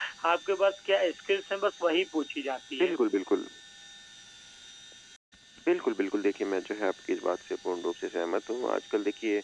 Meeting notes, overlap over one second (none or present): none